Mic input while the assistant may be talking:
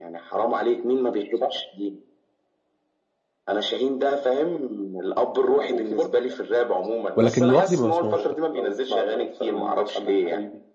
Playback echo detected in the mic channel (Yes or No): Yes